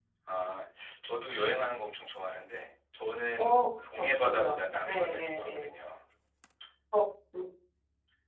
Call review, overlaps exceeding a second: present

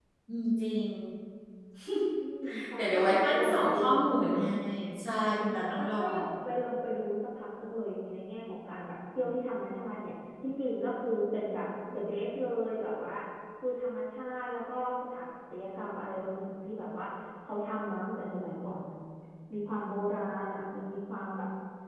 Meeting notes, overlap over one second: present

